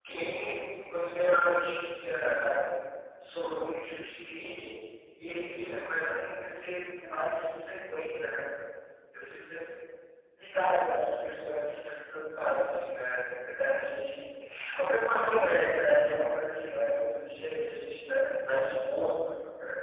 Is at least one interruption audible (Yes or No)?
No